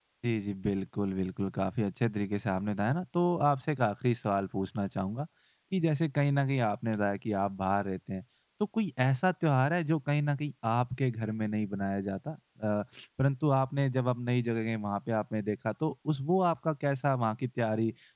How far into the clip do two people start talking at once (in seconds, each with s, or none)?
none